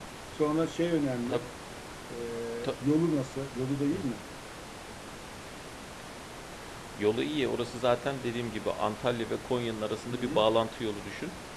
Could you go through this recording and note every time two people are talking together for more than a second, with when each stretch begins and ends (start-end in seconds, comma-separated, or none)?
none